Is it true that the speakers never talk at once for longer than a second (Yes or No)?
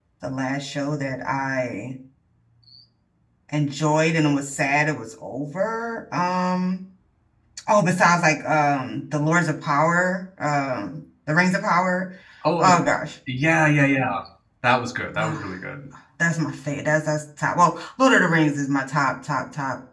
Yes